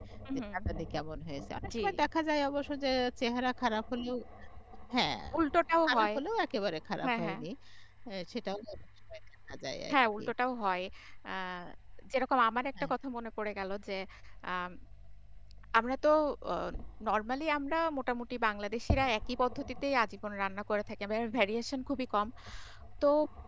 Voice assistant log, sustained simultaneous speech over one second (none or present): none